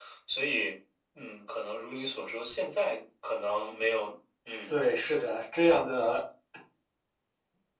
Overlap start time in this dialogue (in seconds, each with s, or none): none